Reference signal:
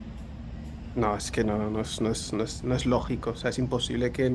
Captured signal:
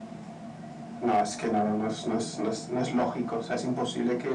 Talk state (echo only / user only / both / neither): echo only